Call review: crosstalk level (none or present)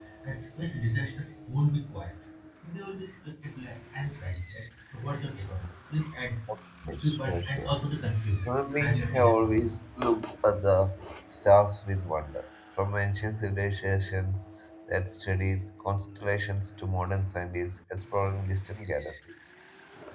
present